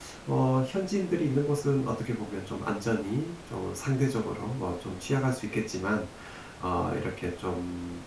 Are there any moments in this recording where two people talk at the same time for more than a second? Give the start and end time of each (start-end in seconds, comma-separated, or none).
none